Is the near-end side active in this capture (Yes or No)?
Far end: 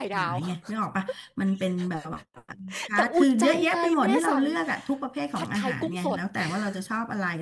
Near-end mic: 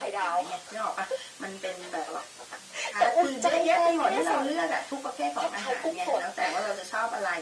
No